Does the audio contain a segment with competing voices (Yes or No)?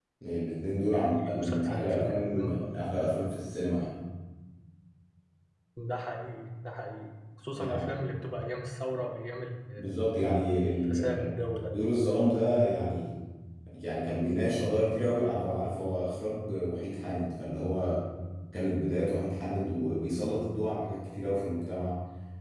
Yes